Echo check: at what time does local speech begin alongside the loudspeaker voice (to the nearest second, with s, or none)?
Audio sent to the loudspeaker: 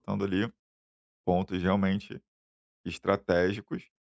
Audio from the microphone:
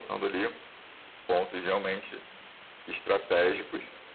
none